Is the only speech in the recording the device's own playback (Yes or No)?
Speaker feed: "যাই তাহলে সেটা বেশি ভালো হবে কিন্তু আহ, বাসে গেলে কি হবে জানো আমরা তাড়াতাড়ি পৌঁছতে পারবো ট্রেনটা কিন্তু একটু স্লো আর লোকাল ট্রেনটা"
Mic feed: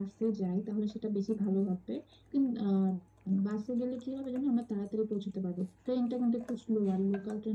Yes